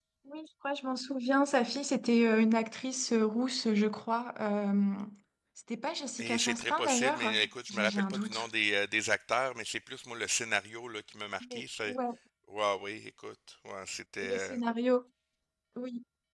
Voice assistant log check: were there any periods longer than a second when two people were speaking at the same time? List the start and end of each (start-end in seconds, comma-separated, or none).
6.2-8.4